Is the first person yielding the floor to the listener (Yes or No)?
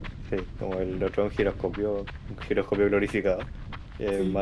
No